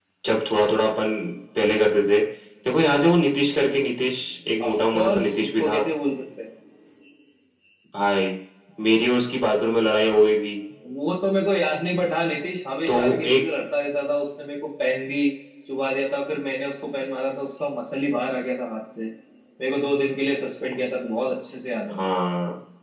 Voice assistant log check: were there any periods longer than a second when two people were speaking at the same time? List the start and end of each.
4.7-5.9

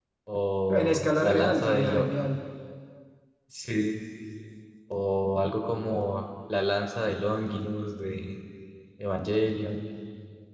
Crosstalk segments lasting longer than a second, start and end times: 0.7-2.0

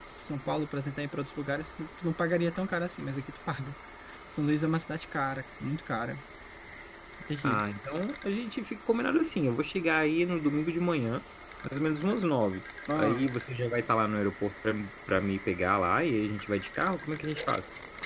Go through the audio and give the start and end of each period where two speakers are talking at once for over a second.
none

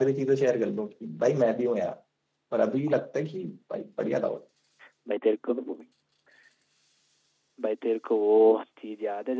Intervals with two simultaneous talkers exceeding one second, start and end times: none

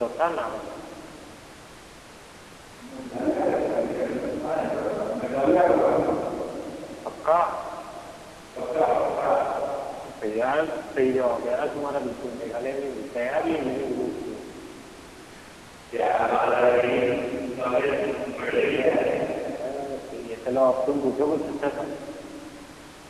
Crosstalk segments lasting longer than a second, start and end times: none

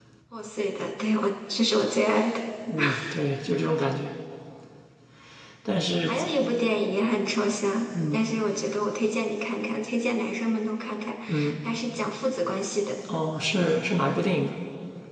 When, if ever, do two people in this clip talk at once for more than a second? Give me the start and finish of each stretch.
none

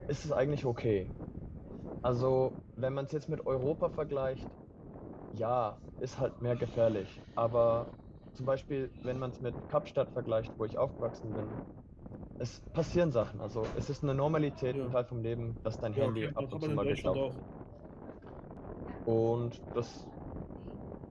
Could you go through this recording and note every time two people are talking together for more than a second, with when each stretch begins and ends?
15.9-17.2

